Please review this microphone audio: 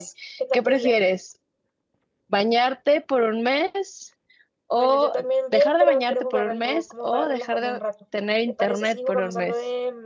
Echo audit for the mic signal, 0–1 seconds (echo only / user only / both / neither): both